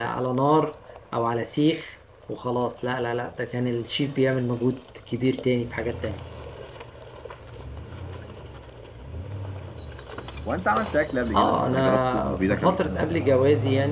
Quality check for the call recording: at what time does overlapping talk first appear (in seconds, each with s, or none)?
11.3 s